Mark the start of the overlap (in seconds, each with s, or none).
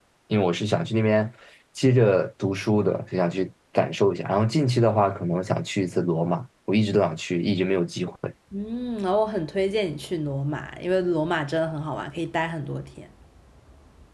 none